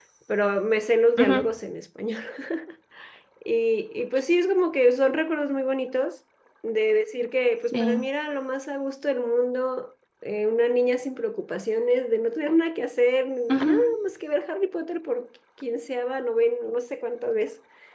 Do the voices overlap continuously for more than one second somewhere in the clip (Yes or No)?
No